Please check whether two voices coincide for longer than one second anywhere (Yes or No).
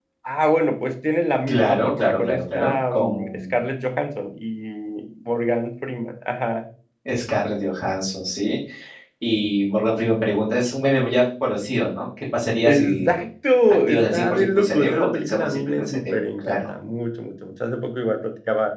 Yes